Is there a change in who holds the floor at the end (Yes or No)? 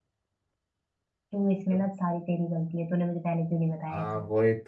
Yes